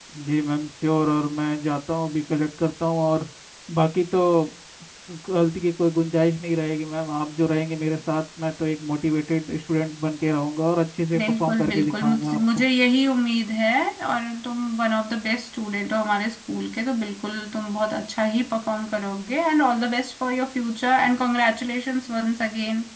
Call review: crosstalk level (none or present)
present